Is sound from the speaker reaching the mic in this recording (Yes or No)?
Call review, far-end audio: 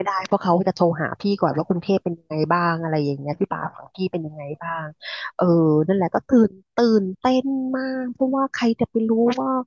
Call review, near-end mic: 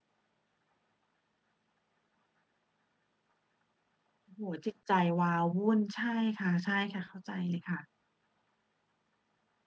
No